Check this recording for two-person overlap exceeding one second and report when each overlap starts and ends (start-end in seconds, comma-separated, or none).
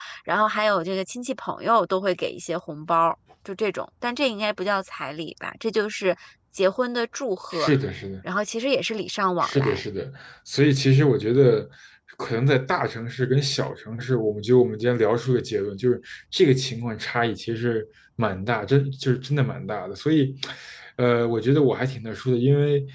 none